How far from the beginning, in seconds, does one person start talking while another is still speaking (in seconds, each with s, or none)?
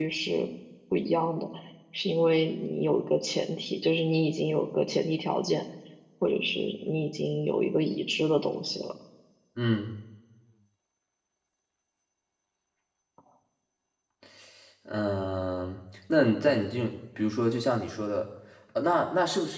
none